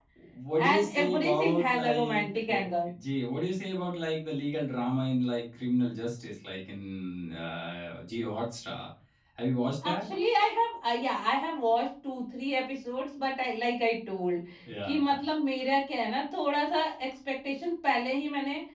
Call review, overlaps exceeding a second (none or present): present